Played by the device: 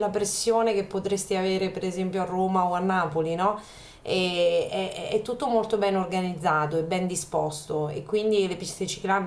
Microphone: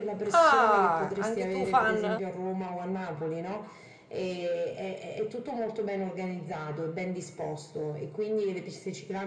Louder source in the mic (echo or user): user